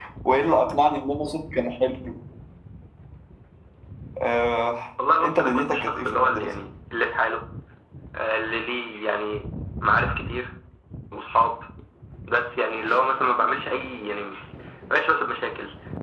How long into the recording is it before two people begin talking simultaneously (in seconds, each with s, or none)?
5.2 s